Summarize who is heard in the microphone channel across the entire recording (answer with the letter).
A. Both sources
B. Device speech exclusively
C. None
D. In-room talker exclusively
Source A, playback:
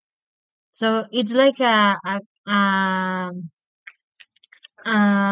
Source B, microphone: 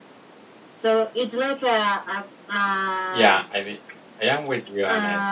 A